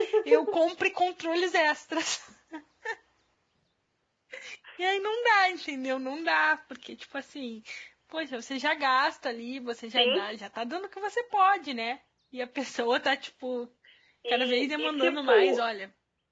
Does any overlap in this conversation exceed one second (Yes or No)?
Yes